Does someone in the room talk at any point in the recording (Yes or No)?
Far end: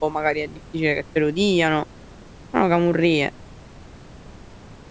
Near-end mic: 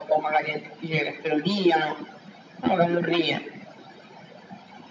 No